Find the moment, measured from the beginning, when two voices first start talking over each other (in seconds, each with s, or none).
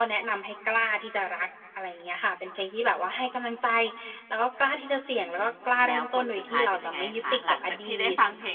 5.8 s